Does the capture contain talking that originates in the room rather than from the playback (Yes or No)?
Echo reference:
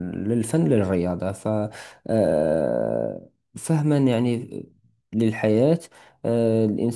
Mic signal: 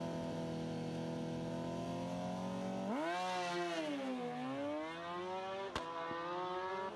No